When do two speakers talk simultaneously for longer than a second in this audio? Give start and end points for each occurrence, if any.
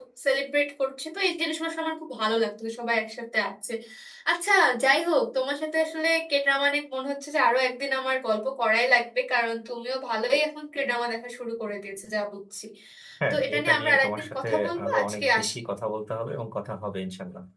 13.3-15.6

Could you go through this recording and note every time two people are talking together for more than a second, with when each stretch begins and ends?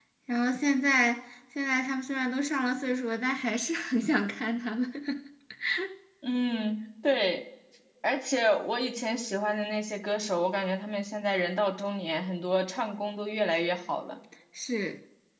none

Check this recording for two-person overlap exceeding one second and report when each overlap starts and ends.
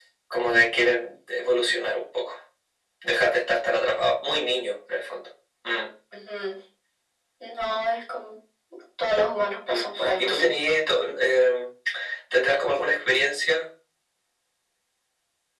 none

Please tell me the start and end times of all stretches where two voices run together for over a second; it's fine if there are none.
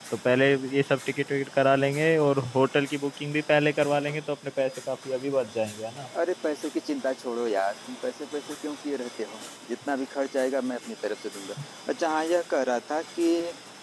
none

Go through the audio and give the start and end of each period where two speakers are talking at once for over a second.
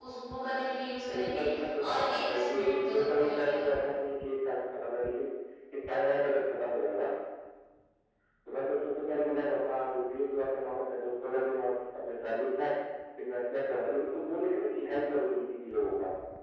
1.9-3.7

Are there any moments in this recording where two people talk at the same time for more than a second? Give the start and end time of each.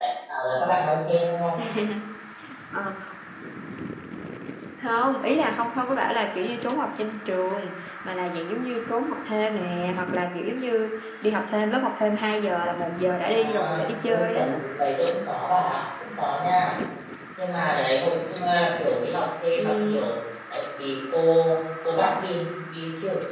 13.3-14.5

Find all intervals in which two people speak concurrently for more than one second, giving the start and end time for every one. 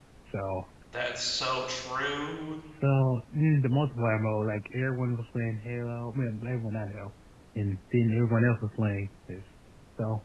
none

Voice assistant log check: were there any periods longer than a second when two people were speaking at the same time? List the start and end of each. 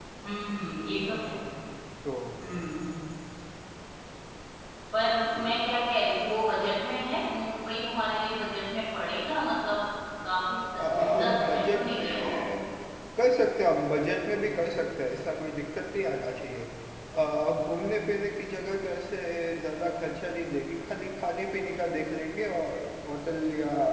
10.8-12.3

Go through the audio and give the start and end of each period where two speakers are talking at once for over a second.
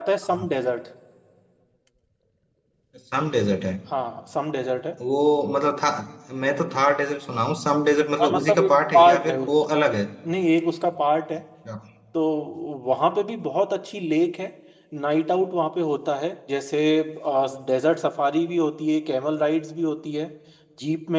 8.2-9.5

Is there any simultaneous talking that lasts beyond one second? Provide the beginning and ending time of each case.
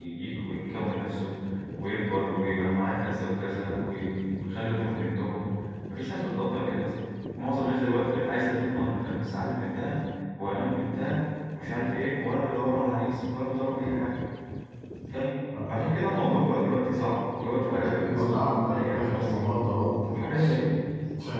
17.6-19.4

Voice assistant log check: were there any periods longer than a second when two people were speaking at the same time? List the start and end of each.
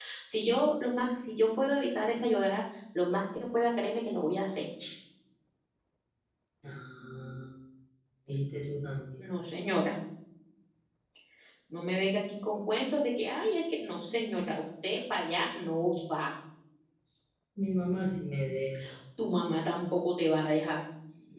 none

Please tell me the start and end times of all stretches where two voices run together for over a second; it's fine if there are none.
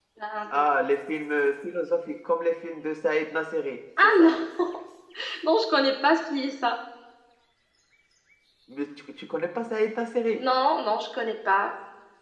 none

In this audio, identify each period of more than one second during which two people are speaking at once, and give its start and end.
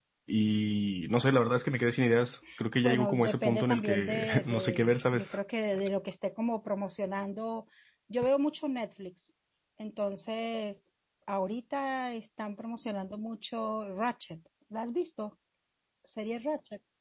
2.8-5.4

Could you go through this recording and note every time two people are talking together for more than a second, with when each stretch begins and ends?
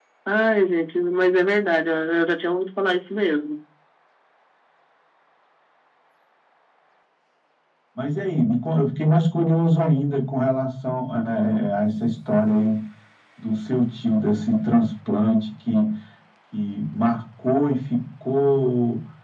none

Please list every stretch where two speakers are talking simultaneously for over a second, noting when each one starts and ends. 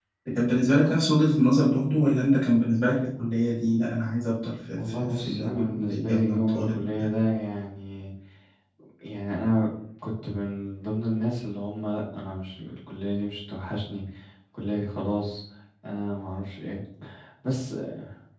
4.8-7.1

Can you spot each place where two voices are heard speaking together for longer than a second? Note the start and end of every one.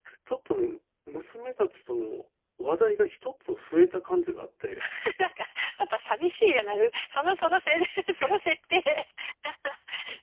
none

